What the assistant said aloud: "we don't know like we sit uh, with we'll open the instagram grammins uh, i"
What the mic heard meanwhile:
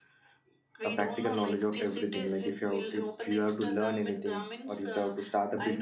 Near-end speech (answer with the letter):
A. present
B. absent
A